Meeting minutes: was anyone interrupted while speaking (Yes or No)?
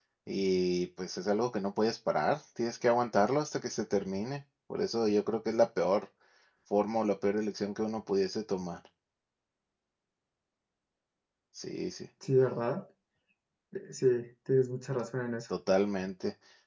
No